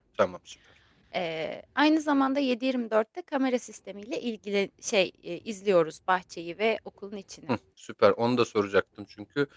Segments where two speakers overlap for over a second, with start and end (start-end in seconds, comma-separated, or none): none